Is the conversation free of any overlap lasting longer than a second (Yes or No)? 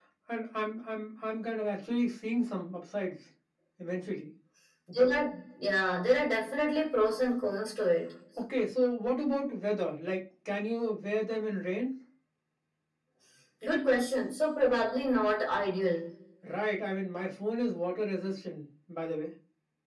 Yes